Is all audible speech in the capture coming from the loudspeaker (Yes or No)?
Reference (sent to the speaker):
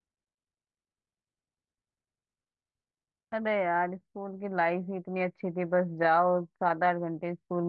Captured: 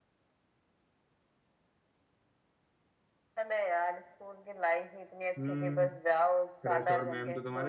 No